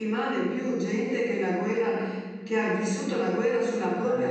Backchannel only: Yes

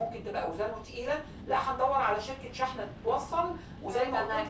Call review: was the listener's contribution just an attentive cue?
No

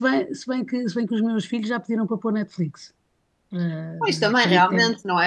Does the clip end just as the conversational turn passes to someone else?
Yes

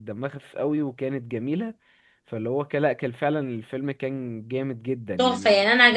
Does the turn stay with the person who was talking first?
No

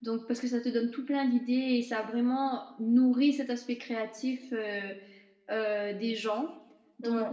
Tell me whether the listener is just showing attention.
Yes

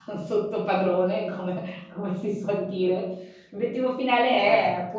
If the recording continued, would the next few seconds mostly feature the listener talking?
No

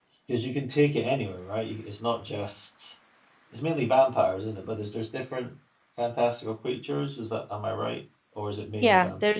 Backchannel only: No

